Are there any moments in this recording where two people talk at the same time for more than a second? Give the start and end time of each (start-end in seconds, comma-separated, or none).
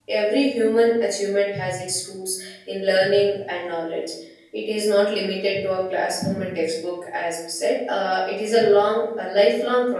none